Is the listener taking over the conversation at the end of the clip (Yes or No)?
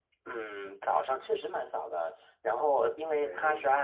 No